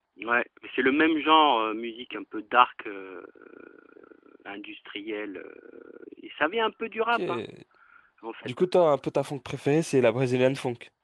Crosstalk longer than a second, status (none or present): none